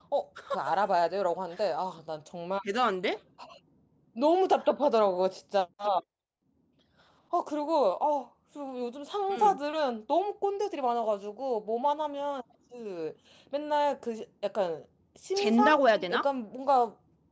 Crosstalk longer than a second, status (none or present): none